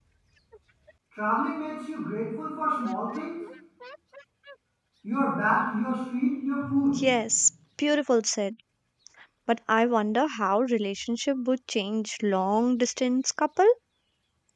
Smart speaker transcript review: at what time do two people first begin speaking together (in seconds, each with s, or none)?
none